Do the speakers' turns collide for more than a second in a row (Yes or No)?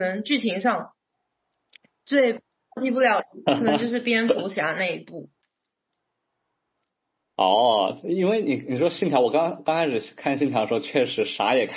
No